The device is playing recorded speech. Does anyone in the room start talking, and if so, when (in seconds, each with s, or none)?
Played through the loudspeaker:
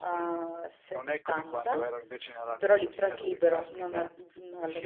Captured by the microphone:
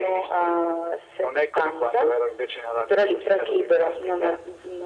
none